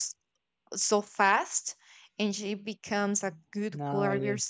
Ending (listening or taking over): listening